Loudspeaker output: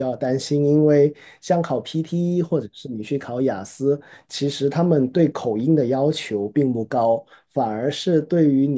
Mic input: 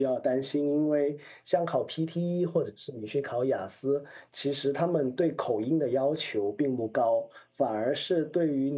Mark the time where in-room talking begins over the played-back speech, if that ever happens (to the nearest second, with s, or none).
none